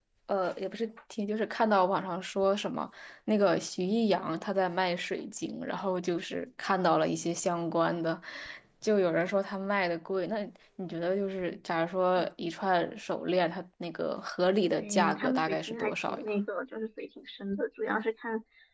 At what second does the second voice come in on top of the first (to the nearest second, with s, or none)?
15 s